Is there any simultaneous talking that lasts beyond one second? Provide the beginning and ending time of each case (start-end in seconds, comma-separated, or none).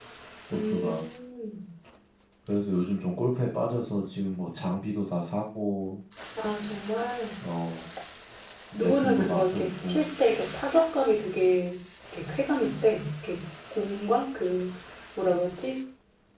8.7-10.1